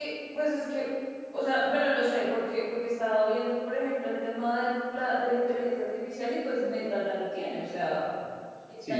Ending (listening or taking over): taking over